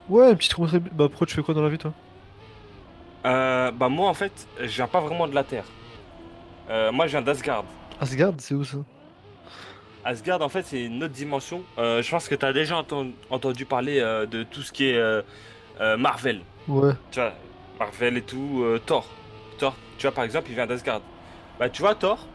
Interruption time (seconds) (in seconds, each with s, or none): none